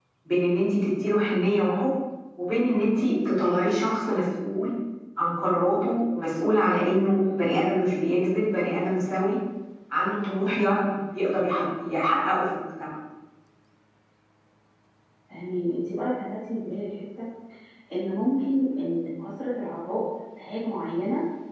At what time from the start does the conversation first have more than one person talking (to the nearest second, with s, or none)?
none